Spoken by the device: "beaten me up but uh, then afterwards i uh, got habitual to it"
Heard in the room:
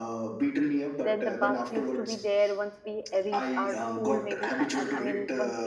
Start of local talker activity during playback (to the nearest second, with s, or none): 1 s